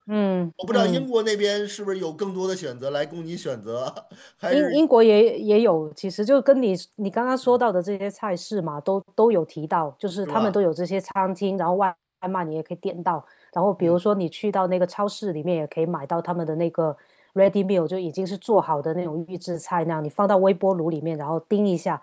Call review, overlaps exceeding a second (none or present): none